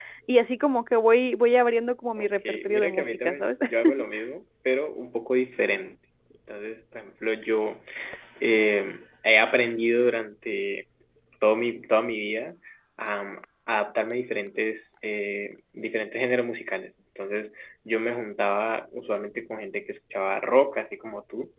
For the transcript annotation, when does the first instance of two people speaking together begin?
2 s

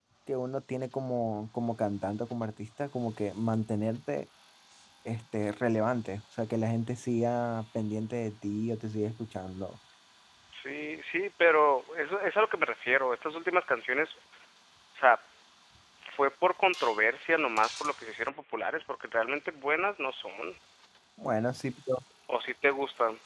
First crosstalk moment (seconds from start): none

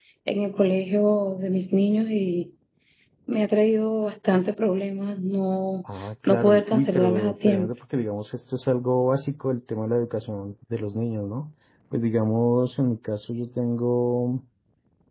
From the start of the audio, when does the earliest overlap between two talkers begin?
6 s

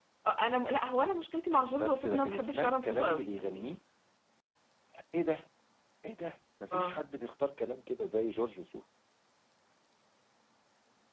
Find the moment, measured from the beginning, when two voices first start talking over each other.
2 s

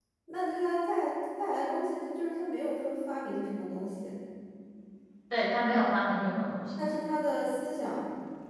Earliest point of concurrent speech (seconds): none

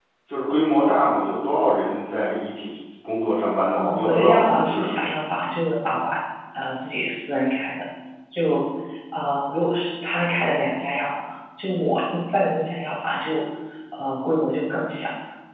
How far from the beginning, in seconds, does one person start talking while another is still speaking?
4 s

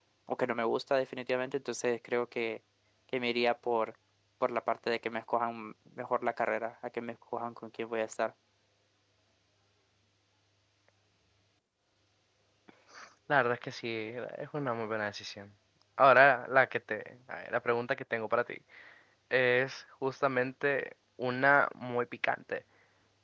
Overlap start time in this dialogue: none

